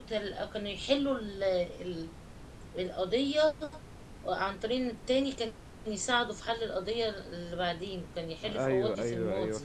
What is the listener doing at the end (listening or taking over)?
taking over